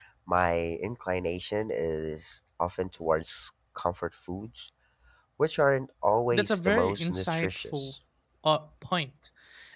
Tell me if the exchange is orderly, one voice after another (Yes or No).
No